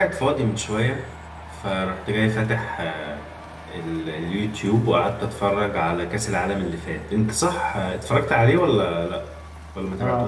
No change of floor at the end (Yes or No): No